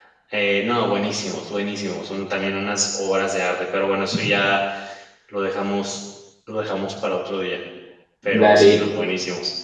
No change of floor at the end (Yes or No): Yes